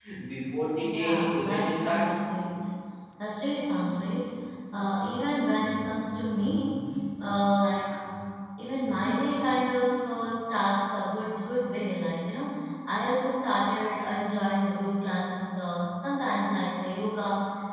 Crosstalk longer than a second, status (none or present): present